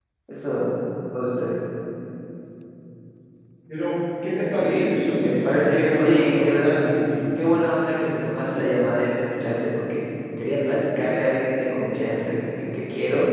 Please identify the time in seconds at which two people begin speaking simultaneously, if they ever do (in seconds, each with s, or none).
4.5 s